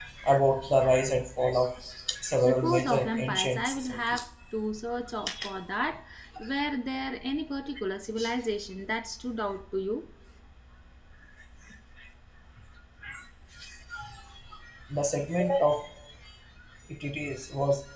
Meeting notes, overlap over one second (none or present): present